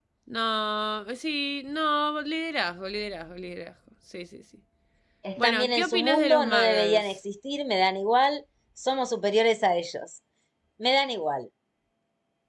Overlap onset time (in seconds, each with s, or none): 5.4 s